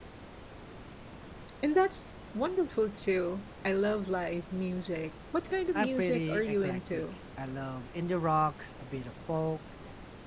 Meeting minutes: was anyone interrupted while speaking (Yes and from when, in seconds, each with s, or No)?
Yes, from 5.7 s